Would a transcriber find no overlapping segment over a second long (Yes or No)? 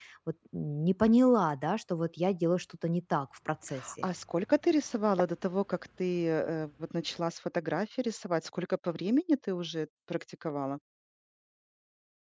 Yes